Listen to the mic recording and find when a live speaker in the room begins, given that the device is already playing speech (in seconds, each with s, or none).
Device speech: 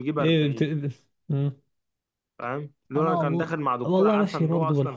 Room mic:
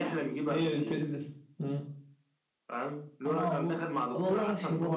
none